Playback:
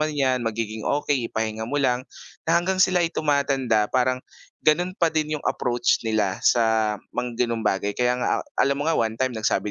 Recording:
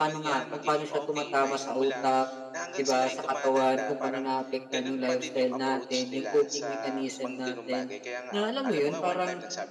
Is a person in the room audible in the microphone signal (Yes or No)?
Yes